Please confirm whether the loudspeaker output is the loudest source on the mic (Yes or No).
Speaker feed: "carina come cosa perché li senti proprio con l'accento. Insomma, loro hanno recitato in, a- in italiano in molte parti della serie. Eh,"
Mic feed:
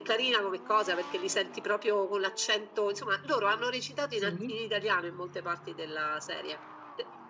Yes